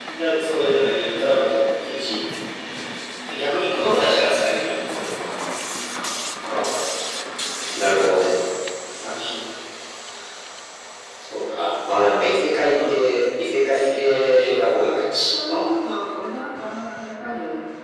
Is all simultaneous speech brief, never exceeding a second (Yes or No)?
No